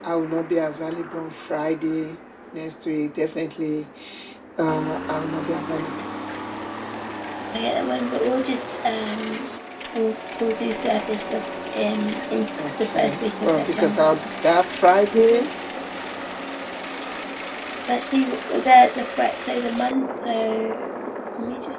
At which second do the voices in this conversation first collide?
12.6 s

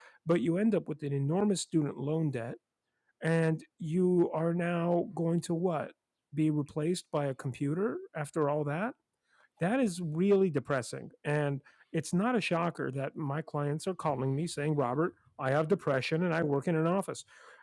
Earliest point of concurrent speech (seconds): none

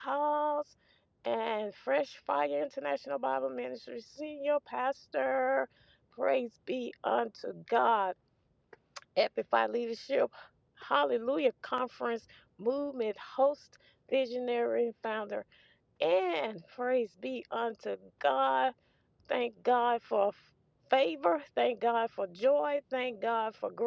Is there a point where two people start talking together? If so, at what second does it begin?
none

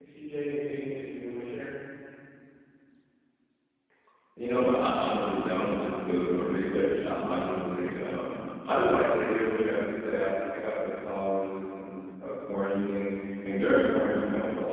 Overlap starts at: none

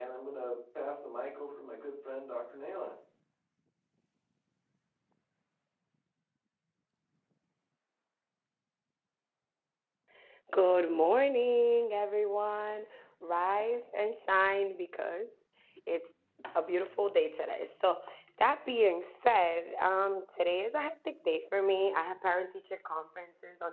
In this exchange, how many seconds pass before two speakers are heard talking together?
none

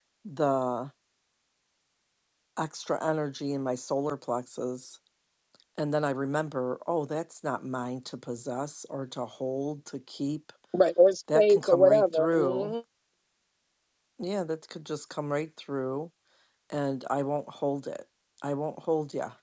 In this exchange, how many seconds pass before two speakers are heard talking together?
11.3 s

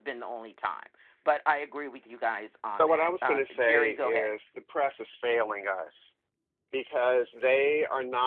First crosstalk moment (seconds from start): 2.7 s

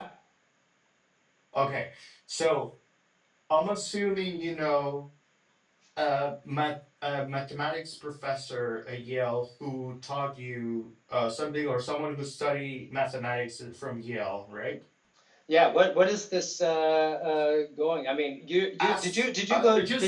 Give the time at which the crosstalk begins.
18.8 s

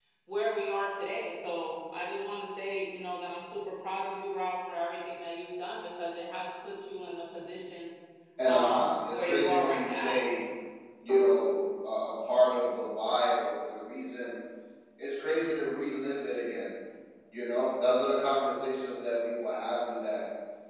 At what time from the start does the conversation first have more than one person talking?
8.4 s

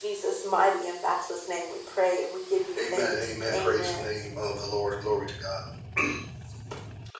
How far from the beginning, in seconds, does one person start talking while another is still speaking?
2.8 s

